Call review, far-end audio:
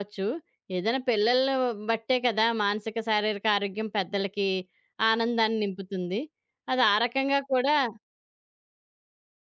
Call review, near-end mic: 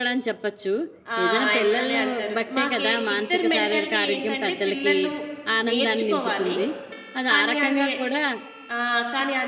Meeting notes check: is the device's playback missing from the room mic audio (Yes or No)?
No